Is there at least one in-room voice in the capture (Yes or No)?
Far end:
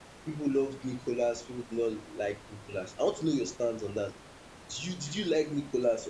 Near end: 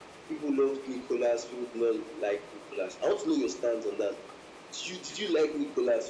No